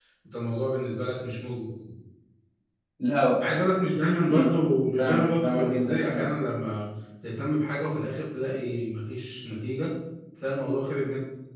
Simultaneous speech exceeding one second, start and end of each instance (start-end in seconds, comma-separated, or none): 5.0-6.3